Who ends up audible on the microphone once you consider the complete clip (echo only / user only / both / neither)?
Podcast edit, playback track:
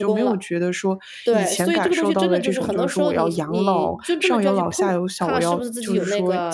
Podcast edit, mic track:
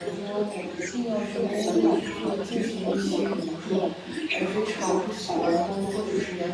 both